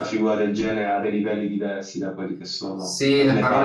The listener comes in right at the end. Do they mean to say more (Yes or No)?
Yes